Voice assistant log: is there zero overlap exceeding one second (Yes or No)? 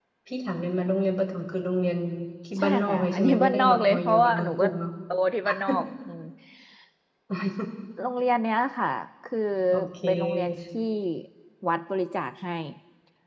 No